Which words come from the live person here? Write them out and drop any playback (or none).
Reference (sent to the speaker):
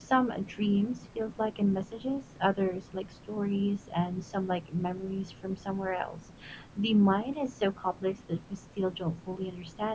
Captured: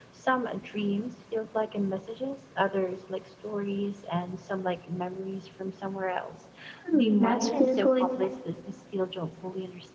Hmm, that's beautiful. It might